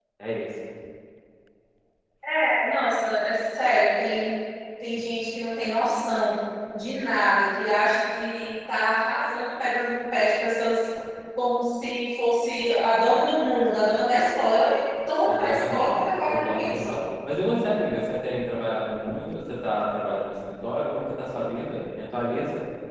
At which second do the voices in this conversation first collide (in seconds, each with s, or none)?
15.2 s